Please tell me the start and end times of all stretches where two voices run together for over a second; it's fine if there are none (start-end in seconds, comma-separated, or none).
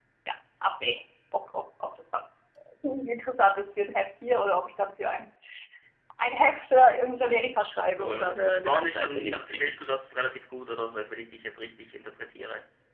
8.0-9.7